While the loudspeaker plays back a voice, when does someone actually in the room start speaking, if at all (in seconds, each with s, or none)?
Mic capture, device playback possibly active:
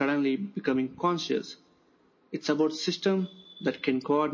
none